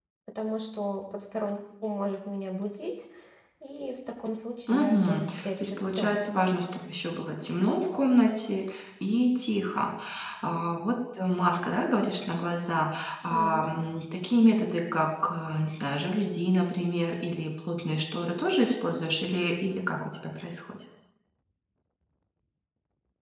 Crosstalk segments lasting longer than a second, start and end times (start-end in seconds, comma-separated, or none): 4.7-6.2